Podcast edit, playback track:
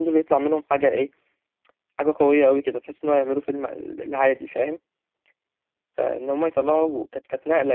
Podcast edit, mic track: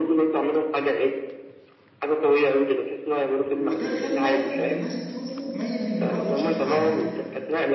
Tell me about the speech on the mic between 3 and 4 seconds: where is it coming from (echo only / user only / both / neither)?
both